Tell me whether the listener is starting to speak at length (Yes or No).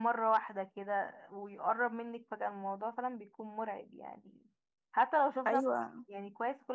No